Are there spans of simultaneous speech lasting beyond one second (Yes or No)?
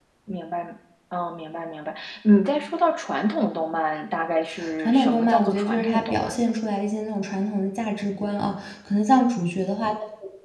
Yes